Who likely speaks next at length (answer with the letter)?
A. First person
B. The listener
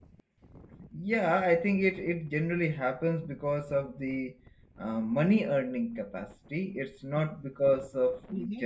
B